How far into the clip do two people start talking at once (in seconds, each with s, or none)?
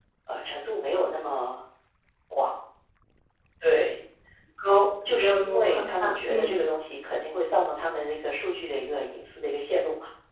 5.1 s